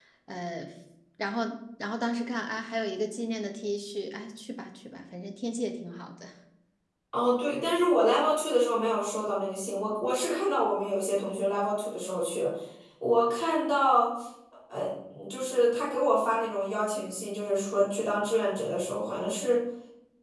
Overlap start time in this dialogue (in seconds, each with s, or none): none